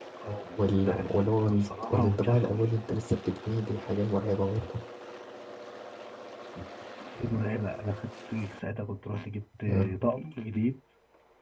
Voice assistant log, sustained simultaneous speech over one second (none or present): present